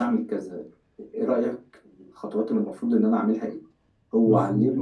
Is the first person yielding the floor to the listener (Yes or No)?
No